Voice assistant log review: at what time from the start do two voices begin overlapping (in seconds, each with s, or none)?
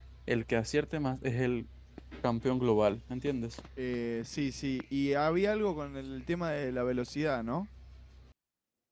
none